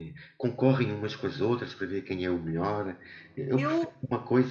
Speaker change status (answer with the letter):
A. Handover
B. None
B